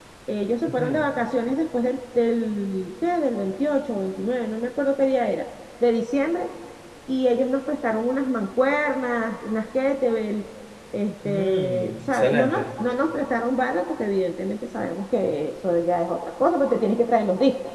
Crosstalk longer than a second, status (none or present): present